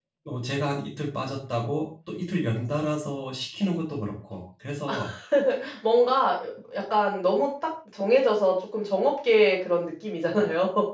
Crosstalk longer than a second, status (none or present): none